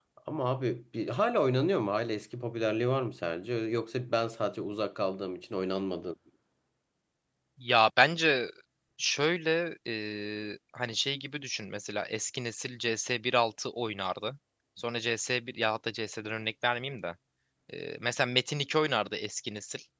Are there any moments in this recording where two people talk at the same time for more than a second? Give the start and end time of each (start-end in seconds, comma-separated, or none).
none